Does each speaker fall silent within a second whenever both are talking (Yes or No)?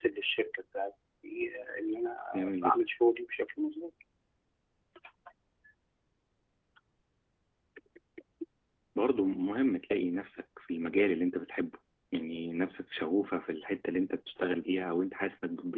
Yes